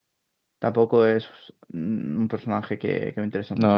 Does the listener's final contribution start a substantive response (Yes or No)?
Yes